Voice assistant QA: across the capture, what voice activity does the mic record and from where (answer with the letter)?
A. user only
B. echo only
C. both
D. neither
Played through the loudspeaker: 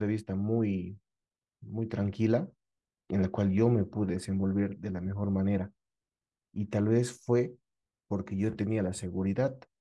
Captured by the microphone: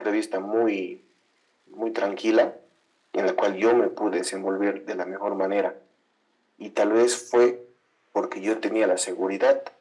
B